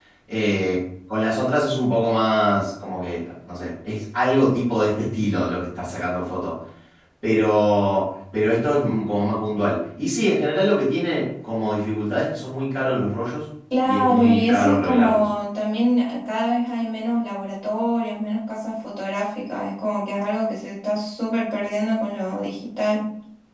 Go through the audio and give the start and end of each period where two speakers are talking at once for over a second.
13.8-15.3

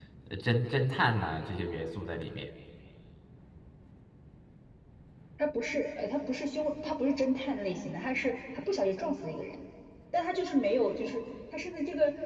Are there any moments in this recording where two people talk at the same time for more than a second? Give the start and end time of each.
none

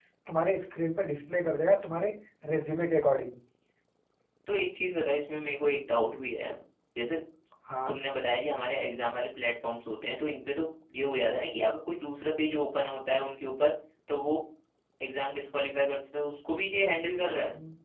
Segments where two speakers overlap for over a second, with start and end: none

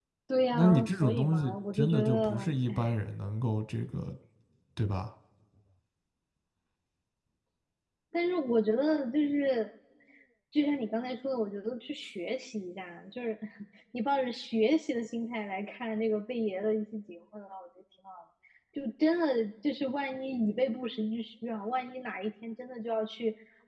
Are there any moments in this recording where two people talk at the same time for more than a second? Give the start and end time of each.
0.5-2.9

